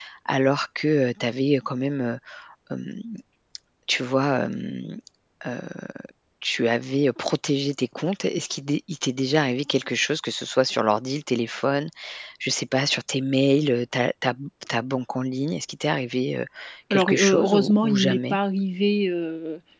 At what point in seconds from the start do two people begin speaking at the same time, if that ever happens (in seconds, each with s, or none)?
16.9 s